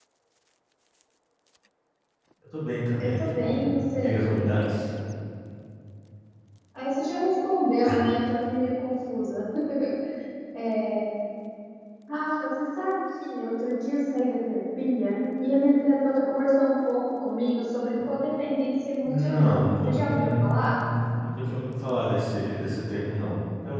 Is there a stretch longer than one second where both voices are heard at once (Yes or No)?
Yes